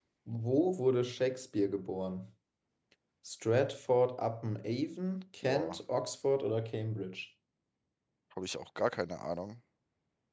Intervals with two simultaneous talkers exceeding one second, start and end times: none

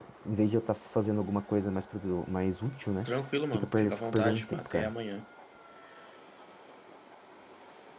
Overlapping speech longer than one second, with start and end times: 3.5-4.9

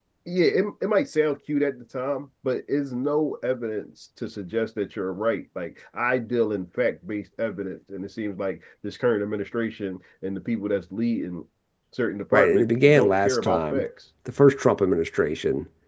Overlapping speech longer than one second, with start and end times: 12.3-13.9

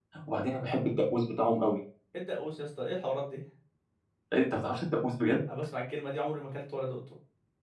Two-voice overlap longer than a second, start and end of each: none

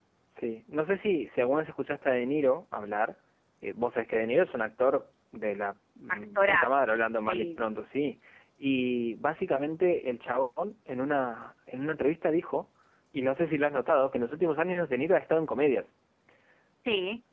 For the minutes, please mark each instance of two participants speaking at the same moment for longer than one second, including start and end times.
6.1-7.6

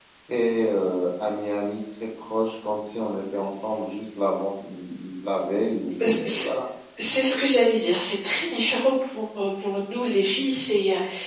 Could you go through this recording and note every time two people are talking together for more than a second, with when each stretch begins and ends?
none

